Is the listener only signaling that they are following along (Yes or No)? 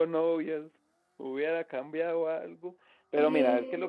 Yes